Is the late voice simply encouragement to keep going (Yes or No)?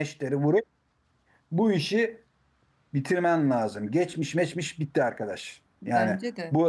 Yes